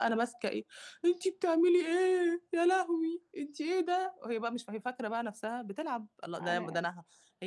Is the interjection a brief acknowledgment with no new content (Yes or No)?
Yes